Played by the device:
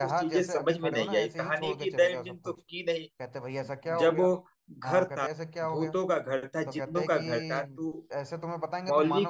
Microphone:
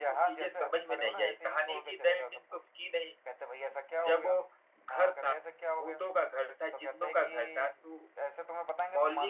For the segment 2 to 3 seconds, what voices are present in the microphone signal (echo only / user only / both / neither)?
echo only